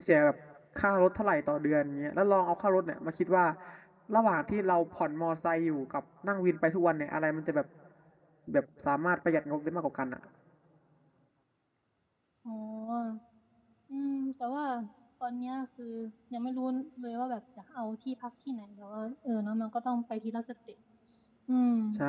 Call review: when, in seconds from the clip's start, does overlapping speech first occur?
none

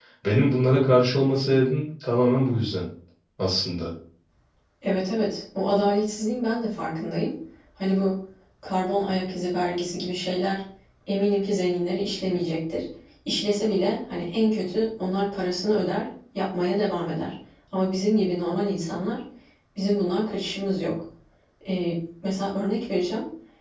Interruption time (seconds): none

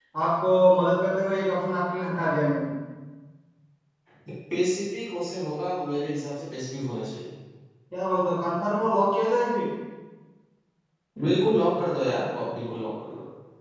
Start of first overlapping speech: none

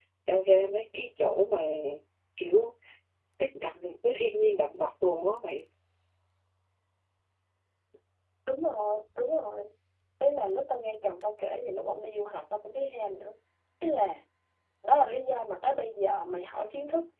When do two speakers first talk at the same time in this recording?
none

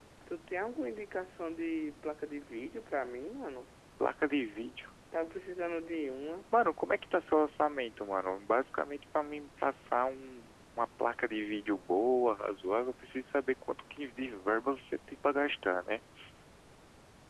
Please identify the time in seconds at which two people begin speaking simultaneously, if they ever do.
none

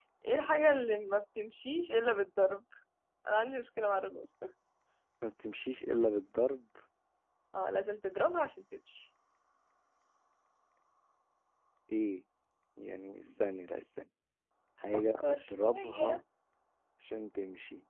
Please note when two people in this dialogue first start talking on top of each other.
14.9 s

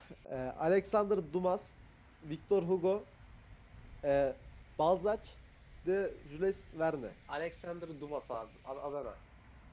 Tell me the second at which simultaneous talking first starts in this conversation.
none

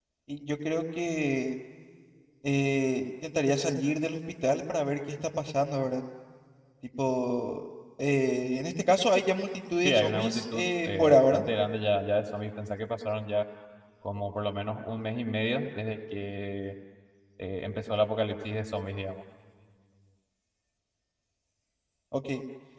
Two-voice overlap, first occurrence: 9.8 s

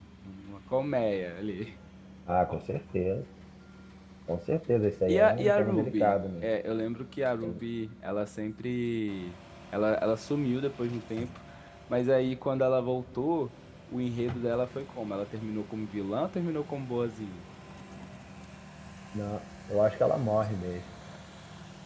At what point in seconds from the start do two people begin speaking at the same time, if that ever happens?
5.1 s

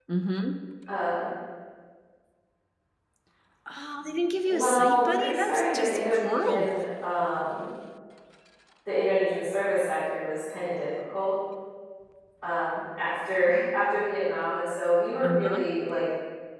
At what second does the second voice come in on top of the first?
4.5 s

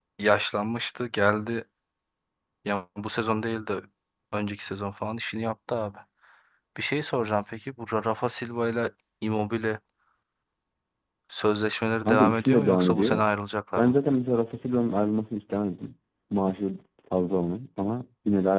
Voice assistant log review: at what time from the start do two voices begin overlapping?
12.0 s

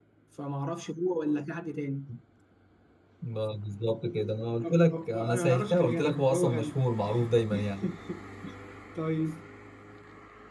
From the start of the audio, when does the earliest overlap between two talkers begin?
4.6 s

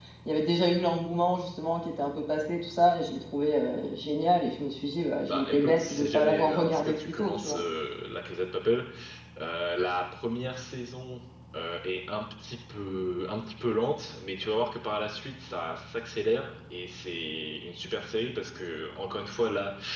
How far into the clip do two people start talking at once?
5.3 s

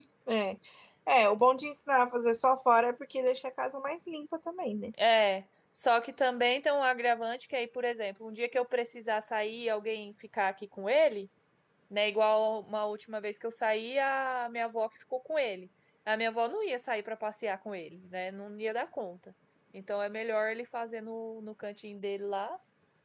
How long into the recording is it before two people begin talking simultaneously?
none

